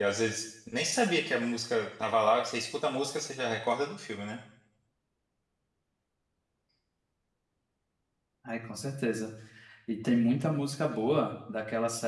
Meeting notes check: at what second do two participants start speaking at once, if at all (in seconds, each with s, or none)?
none